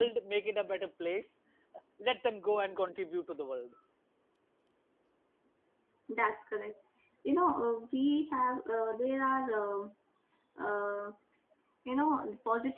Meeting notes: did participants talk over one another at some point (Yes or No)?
No